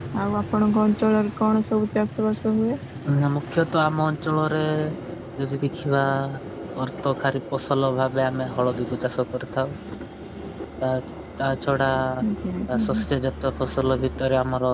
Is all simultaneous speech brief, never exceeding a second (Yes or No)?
Yes